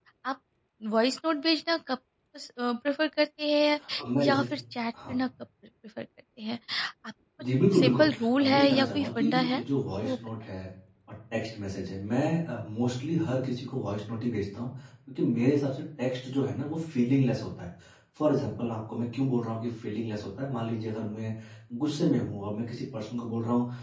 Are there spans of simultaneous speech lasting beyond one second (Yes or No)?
Yes